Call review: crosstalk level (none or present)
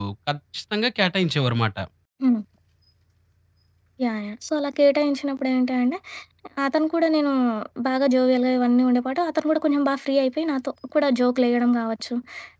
none